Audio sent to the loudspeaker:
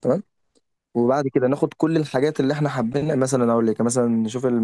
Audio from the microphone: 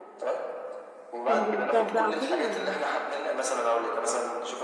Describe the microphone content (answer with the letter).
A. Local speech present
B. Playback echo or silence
A